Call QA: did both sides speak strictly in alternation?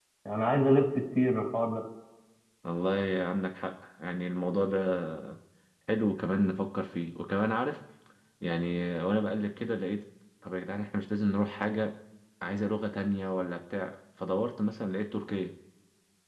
Yes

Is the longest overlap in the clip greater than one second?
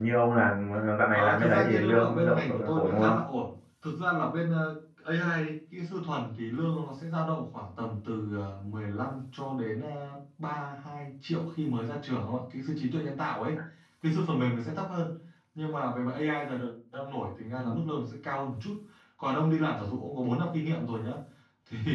Yes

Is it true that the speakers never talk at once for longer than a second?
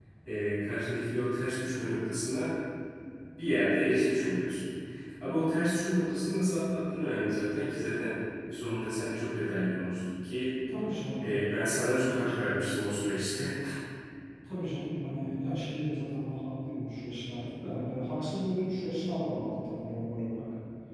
No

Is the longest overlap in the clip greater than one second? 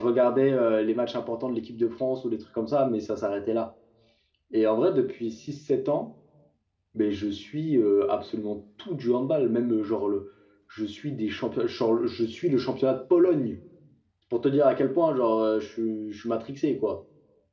No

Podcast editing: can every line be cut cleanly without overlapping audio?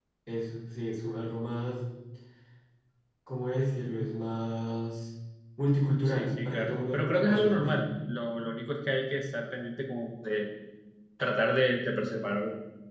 No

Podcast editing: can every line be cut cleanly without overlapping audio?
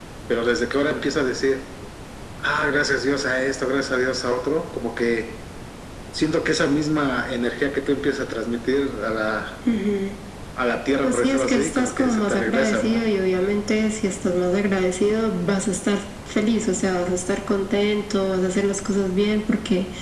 No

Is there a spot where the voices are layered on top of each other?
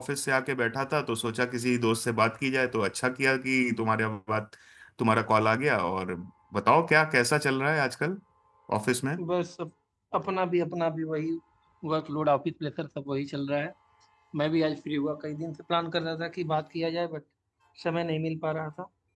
No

